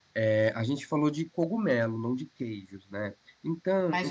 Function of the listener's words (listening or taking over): taking over